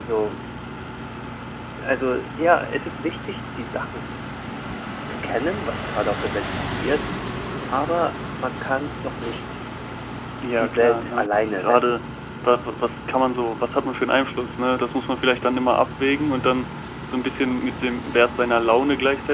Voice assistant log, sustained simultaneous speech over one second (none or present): present